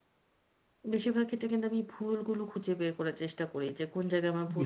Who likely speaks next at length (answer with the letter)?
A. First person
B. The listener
A